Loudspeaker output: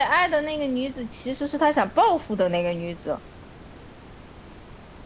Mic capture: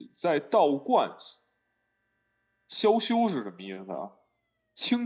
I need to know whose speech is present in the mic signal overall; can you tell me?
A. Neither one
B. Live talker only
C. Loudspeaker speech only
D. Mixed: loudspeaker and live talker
B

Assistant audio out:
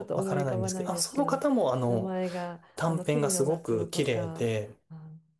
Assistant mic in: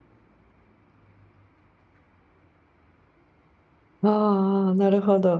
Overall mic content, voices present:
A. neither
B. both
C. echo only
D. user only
D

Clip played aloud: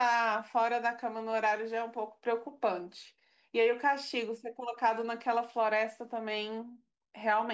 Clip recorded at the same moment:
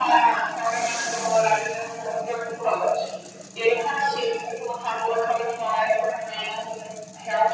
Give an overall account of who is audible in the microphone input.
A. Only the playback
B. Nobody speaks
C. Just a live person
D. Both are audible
A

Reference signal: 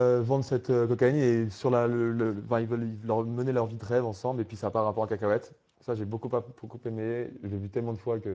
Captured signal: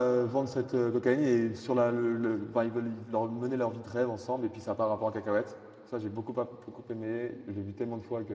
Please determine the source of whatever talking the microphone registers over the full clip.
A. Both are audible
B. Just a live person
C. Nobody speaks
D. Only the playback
D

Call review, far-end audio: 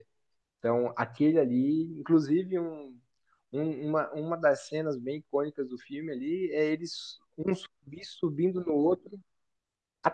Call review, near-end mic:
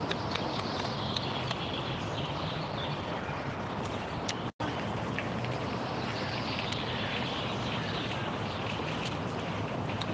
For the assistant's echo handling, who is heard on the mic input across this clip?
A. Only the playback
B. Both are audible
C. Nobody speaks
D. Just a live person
C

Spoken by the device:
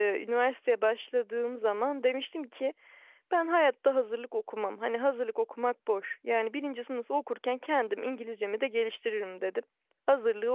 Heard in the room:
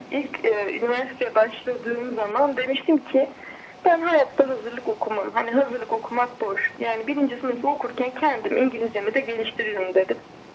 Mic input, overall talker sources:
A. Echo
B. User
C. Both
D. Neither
A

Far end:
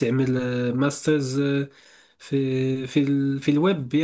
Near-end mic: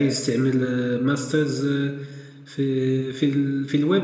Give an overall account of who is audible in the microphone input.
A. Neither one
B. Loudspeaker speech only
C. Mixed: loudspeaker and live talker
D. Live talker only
B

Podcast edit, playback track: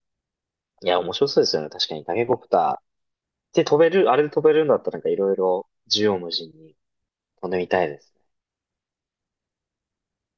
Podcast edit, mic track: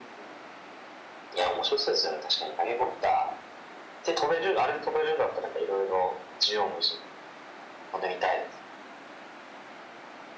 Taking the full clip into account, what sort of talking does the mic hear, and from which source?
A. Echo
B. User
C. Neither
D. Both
A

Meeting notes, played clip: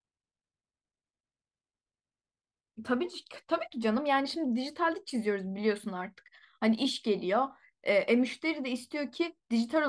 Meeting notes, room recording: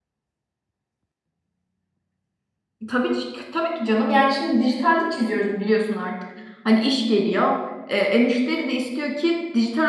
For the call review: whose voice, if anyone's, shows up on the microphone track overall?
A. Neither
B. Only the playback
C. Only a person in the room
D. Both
B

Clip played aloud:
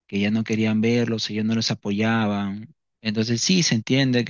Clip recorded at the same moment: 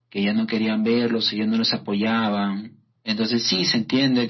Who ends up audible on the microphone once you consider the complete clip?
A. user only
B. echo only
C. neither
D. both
B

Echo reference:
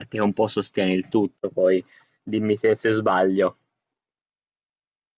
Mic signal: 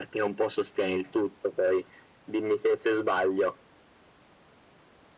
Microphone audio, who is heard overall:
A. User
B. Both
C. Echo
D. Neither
C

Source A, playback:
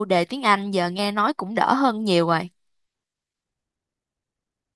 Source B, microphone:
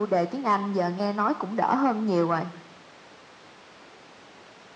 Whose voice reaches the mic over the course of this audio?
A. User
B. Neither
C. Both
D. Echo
D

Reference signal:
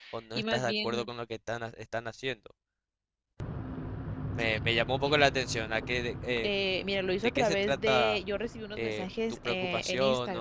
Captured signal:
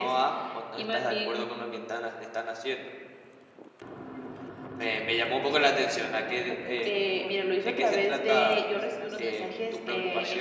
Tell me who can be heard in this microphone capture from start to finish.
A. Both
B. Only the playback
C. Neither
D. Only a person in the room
A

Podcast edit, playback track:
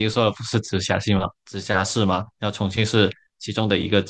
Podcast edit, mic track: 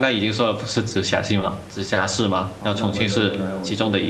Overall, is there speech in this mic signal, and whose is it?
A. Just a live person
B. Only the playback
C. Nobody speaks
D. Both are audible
D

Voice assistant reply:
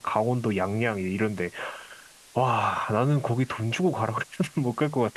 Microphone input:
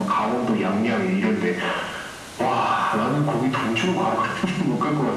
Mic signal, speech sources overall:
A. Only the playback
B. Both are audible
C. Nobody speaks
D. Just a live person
A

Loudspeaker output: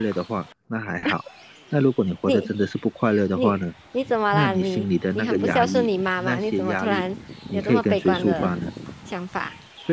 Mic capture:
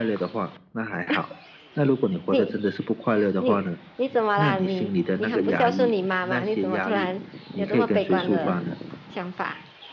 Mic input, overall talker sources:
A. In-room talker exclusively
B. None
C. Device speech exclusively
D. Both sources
C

